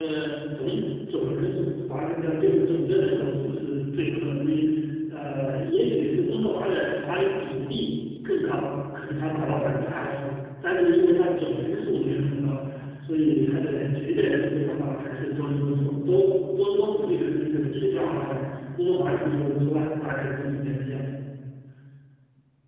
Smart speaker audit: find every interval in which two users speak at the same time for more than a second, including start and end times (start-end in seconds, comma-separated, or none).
none